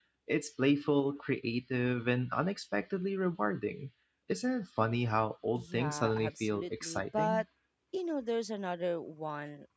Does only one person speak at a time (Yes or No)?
No